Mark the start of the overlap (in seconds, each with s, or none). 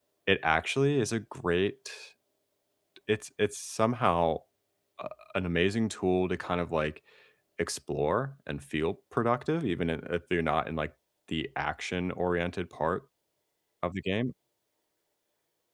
none